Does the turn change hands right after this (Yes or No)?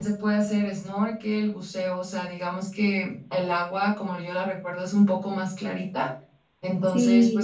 No